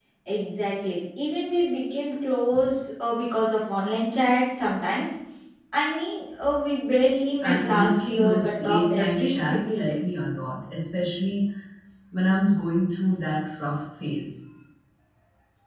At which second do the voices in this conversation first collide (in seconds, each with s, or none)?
7.4 s